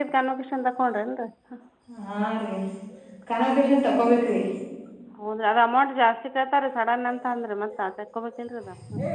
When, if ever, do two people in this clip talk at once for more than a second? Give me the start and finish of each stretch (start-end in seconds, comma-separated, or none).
none